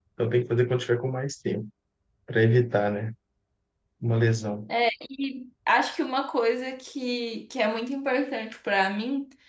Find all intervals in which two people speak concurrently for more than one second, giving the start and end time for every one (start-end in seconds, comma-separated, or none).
none